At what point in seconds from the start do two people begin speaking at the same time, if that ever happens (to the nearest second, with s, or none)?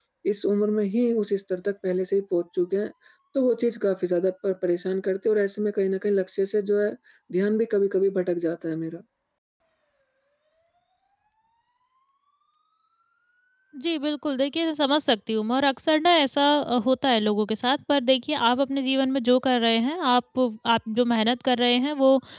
none